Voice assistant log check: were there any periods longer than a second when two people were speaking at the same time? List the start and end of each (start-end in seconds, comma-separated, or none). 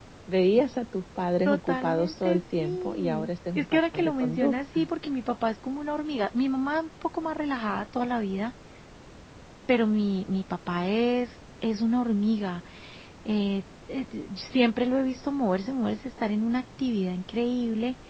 1.4-4.9